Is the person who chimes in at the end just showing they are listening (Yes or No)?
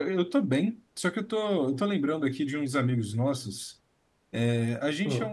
Yes